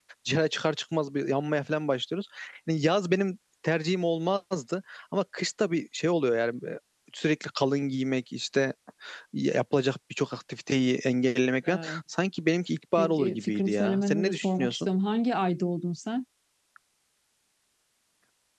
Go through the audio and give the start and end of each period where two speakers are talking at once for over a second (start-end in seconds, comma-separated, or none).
13.0-14.9